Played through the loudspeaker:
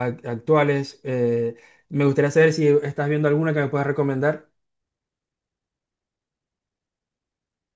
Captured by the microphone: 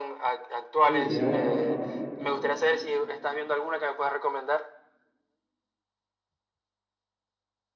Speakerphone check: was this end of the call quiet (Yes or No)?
No